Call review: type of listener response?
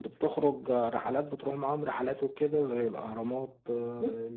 listening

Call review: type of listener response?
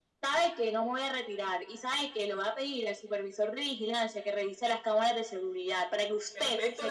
taking over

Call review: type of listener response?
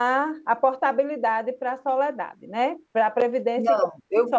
taking over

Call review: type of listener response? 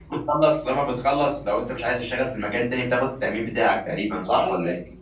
taking over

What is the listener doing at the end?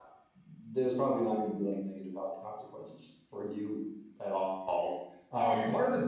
listening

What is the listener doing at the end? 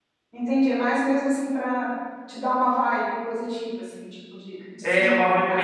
taking over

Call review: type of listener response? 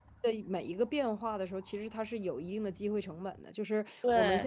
listening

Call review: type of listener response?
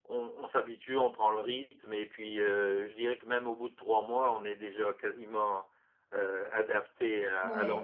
taking over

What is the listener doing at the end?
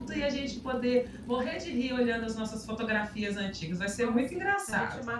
taking over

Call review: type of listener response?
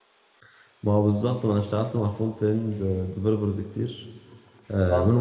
listening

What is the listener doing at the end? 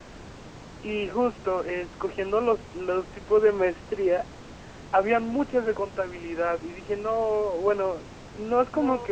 listening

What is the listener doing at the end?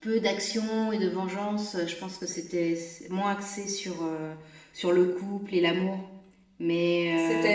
listening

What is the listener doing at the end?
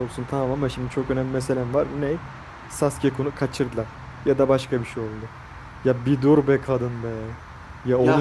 taking over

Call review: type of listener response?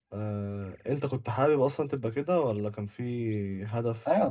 taking over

